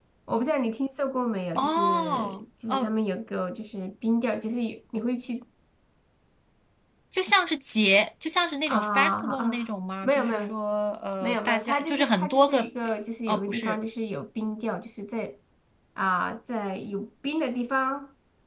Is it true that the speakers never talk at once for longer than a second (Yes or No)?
No